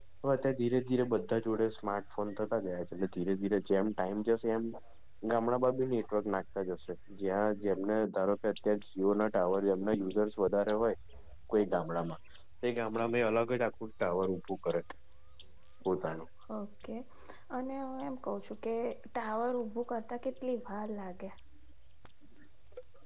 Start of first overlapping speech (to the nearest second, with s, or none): none